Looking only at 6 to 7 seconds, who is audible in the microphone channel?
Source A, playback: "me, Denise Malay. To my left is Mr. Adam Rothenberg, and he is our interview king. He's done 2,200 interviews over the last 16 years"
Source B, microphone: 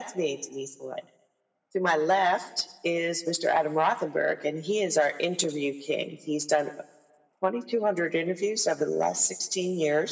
echo only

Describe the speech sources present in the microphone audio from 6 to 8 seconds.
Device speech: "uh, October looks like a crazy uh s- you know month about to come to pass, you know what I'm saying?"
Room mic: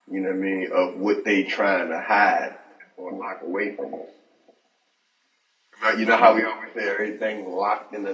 user only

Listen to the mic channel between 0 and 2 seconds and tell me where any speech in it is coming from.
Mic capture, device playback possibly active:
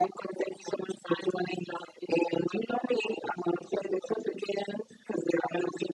echo only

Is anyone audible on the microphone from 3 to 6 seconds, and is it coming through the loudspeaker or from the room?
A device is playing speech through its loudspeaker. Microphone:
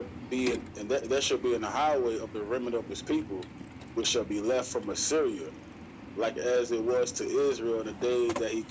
echo only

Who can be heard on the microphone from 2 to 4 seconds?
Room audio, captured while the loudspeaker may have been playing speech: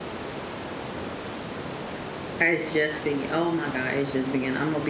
user only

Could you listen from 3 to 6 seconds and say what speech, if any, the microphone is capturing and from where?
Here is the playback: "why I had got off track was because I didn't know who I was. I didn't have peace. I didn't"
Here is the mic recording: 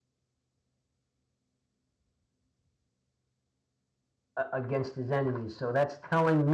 user only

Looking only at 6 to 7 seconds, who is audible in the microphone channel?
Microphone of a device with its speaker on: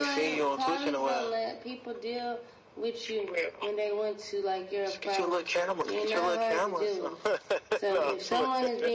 both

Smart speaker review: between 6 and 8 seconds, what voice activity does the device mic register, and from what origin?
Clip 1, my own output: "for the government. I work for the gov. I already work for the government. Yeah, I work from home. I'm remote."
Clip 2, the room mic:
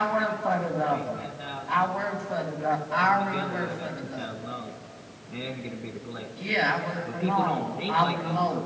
both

